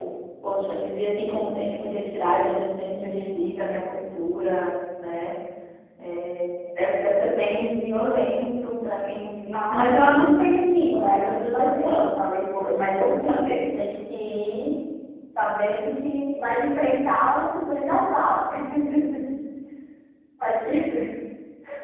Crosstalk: present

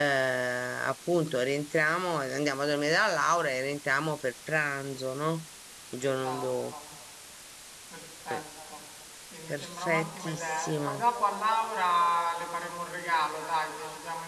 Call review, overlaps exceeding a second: present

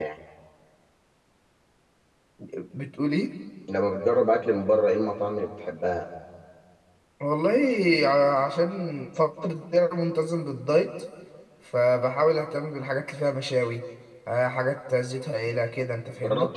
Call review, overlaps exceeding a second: none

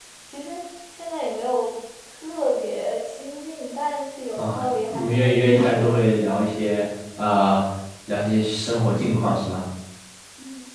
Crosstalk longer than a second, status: present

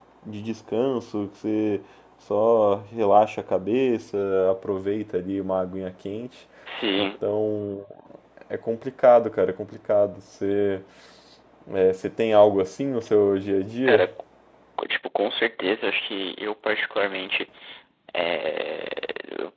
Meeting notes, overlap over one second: none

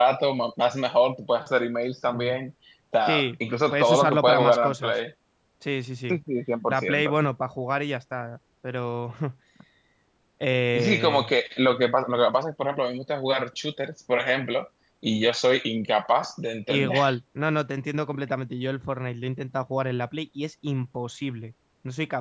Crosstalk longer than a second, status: present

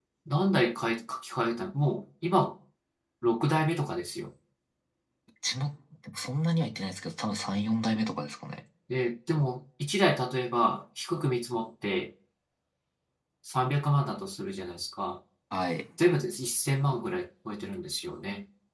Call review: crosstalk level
none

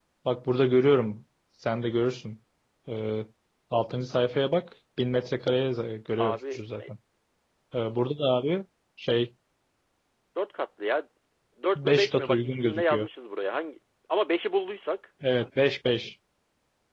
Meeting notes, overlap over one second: present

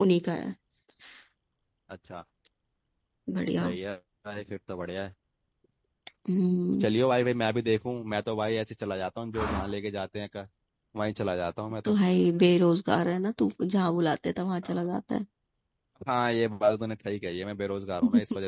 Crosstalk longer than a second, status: none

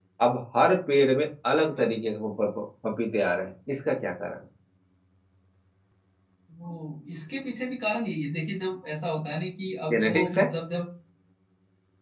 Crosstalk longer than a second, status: none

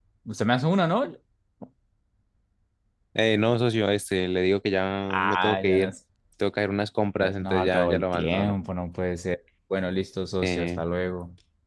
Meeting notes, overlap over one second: present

